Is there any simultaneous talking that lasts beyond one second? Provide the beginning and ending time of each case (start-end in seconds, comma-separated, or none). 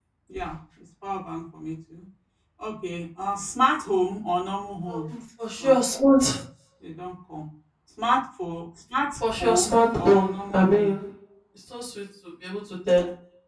9.4-10.9